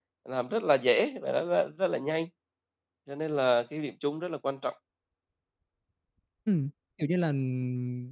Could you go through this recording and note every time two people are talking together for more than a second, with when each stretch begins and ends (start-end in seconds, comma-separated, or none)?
none